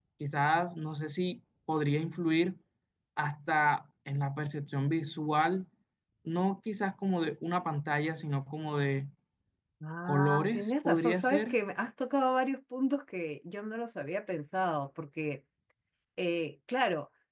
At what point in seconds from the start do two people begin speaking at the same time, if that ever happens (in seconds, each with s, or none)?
10.1 s